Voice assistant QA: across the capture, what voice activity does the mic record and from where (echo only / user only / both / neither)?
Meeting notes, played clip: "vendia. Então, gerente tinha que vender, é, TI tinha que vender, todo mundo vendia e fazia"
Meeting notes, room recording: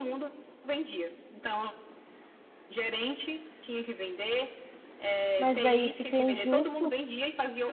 both